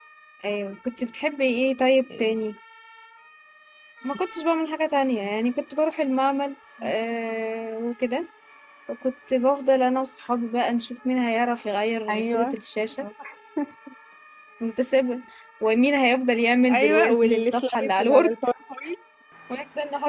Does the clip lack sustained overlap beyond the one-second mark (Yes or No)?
No